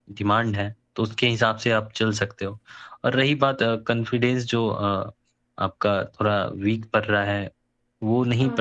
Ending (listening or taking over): listening